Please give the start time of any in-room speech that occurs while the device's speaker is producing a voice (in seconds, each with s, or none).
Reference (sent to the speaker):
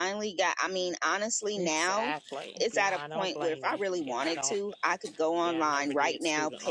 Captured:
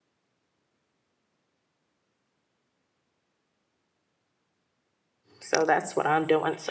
5.4 s